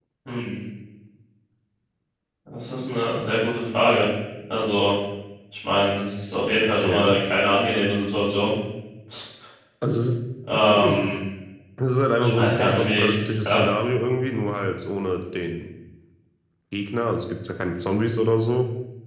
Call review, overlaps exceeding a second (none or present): present